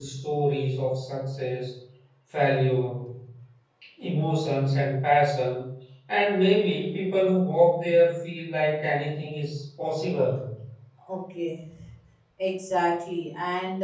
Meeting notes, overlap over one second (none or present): none